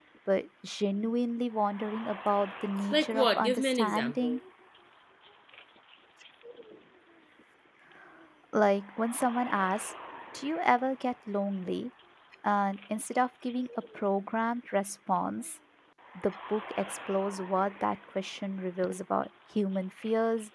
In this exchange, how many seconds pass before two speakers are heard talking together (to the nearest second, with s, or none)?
3 s